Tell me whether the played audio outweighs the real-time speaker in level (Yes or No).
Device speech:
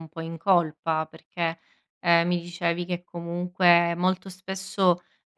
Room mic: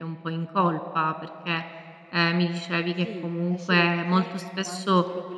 Yes